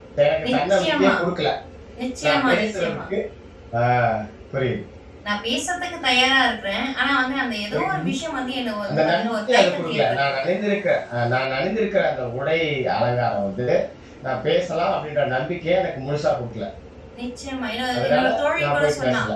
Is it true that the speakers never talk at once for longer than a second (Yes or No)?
No